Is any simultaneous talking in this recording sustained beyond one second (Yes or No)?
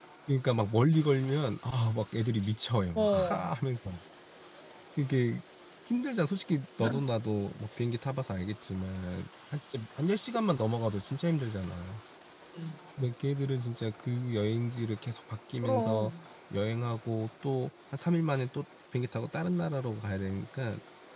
No